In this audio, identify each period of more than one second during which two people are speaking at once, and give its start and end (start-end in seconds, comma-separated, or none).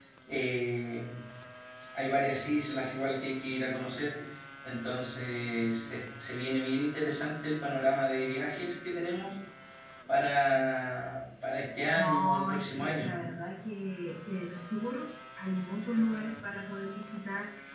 12.0-13.2